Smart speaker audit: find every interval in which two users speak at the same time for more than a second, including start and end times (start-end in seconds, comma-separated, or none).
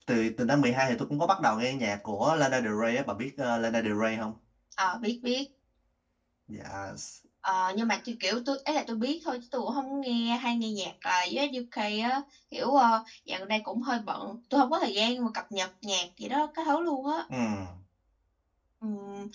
none